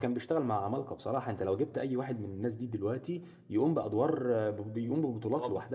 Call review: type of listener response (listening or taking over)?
taking over